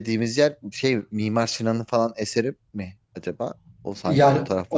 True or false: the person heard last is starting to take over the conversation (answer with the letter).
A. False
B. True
B